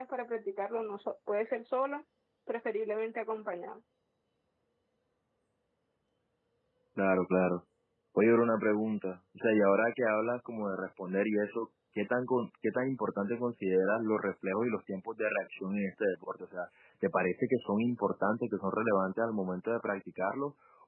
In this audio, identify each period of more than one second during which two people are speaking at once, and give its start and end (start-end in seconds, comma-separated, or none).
none